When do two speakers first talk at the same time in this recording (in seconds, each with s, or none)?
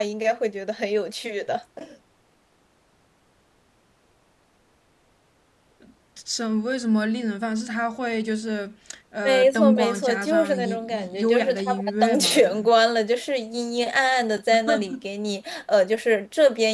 9.2 s